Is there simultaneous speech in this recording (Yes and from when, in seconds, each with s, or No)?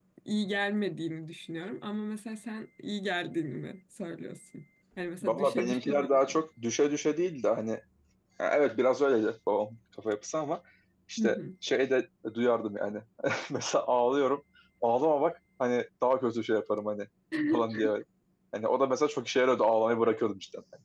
Yes, from 5.2 s